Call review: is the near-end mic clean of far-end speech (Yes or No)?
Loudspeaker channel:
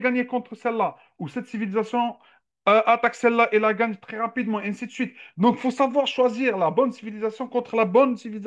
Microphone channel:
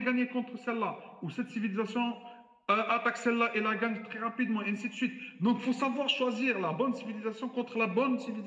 No